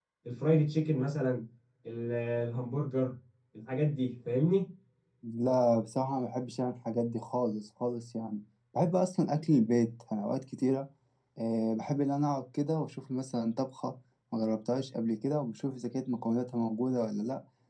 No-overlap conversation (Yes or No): Yes